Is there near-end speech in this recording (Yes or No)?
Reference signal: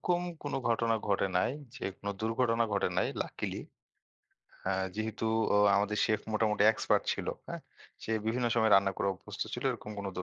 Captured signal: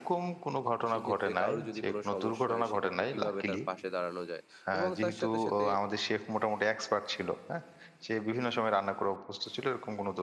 Yes